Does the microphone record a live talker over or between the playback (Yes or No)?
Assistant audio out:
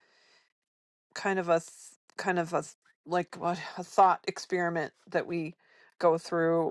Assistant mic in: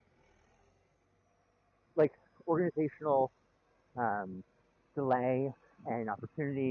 Yes